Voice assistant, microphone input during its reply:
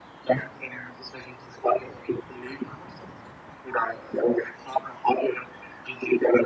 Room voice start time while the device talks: none

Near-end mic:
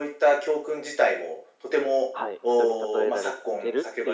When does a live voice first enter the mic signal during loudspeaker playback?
2.1 s

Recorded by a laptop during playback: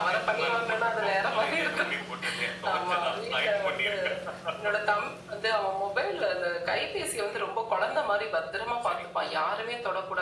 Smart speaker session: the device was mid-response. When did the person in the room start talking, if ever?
none

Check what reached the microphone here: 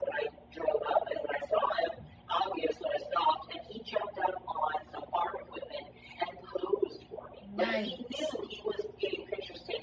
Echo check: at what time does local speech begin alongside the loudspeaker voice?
7.4 s

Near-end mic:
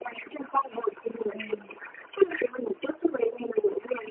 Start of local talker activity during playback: 1.3 s

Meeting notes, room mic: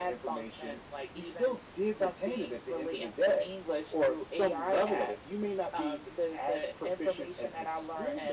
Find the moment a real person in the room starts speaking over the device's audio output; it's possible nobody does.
none

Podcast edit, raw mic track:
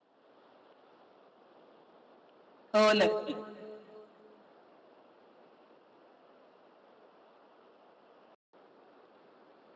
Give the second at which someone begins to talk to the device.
2.7 s

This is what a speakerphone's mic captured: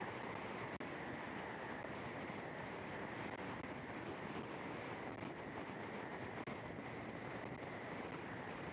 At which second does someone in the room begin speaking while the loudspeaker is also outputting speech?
none

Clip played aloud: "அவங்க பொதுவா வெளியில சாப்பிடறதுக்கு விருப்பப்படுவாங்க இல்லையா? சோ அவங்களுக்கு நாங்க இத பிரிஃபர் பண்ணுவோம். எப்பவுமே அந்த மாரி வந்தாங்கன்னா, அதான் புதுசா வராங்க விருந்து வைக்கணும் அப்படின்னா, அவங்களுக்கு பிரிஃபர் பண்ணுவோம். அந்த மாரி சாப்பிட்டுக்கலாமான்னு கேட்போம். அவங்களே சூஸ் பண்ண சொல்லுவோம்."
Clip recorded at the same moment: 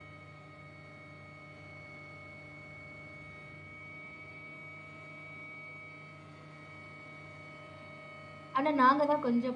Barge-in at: 8.6 s

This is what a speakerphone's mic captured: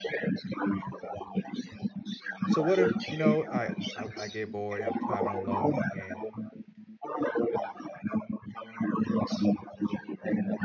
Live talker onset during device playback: 2.5 s

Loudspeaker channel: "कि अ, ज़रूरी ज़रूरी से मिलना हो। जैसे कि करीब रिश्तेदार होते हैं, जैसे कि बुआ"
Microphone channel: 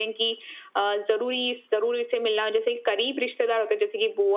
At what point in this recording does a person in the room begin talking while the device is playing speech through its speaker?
none

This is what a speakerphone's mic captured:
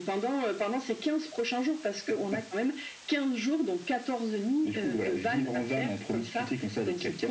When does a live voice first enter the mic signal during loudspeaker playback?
none

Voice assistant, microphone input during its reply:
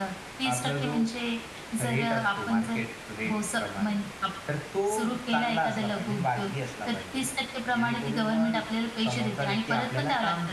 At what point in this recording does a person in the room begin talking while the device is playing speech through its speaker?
none

